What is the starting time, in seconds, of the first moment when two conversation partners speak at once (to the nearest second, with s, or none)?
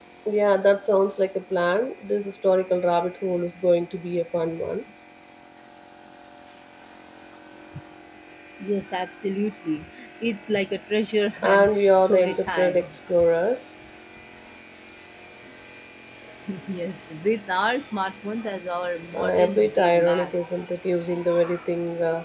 11 s